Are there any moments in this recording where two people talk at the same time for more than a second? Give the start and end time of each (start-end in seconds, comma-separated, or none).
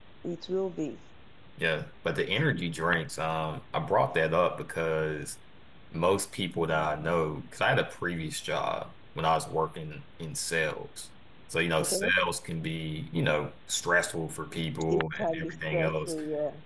14.9-16.2